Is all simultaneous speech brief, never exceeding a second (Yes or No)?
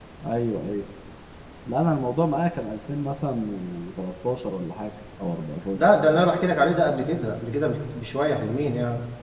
Yes